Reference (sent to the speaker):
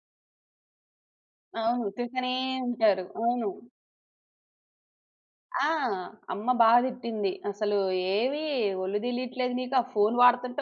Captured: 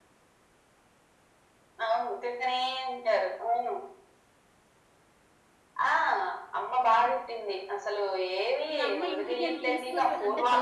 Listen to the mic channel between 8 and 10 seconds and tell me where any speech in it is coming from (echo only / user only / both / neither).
both